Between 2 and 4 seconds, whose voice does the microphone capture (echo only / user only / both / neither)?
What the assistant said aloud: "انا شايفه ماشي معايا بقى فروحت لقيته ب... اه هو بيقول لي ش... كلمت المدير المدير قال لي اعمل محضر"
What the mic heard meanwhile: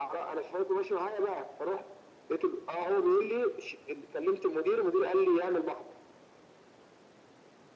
echo only